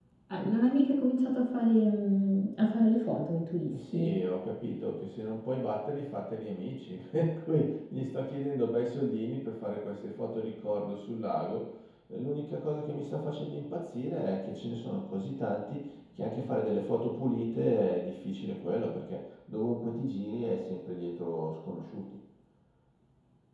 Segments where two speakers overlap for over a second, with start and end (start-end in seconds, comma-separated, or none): none